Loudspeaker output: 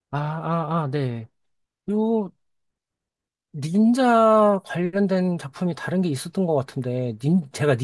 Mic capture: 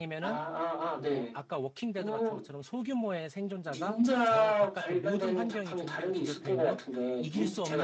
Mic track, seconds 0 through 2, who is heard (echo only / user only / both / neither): both